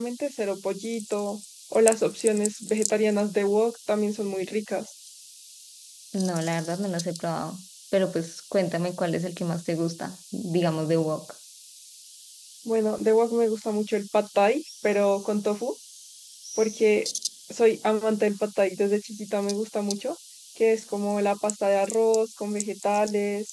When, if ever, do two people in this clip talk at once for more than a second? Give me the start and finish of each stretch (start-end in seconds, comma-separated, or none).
none